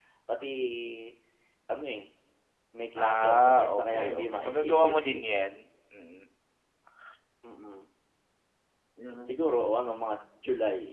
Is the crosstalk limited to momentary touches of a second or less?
No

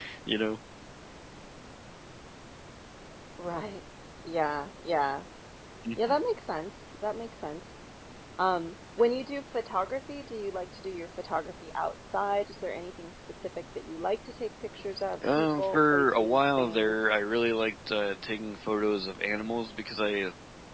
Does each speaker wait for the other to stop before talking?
No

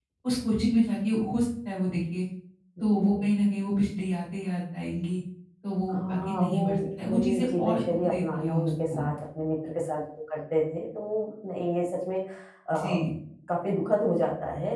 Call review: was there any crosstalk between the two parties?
Yes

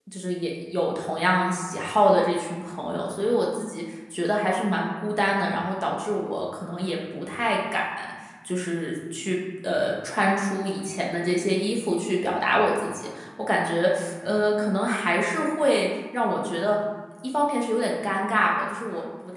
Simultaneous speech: No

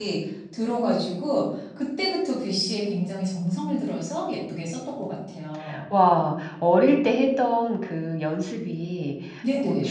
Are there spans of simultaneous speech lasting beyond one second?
No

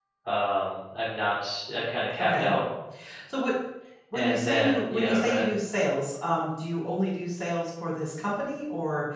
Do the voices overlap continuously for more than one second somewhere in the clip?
Yes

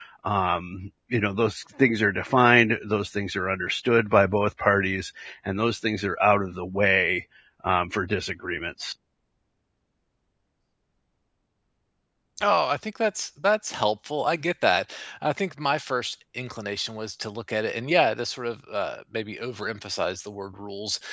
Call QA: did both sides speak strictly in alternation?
Yes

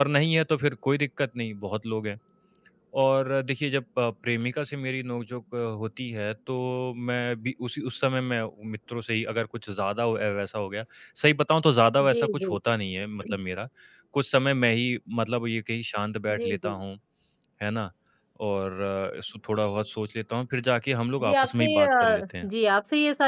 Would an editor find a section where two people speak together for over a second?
Yes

